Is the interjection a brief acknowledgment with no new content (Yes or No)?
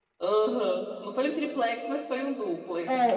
No